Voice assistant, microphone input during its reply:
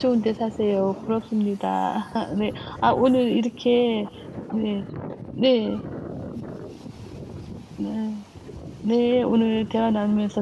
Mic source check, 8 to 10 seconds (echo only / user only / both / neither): user only